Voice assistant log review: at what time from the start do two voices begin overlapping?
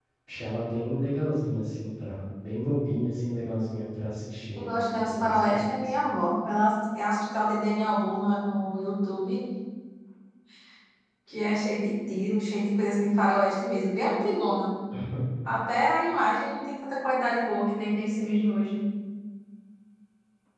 5 s

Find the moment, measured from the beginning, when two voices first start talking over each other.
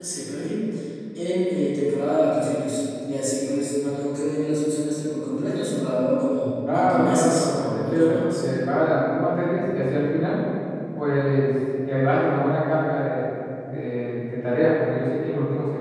7 s

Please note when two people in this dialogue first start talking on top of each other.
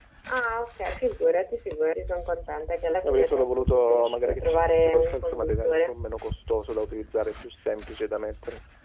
3 s

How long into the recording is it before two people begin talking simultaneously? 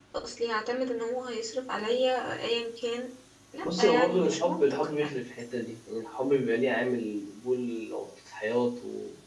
4 s

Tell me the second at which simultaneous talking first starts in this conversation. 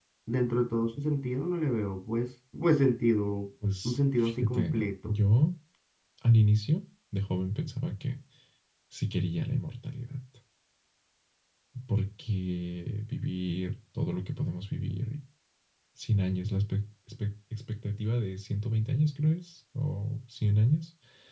4 s

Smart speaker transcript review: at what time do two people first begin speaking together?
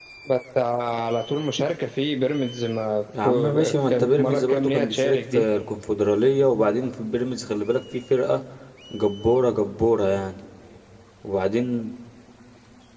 3 s

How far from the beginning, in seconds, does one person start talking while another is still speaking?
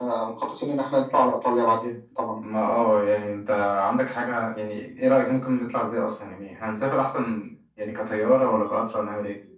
none

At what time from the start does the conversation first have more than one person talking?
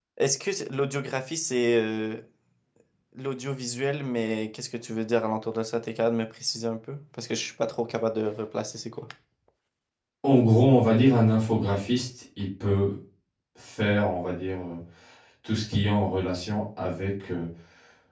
none

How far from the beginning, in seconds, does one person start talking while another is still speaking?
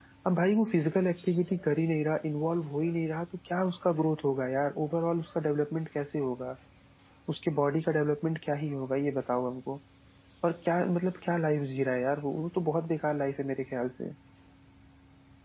none

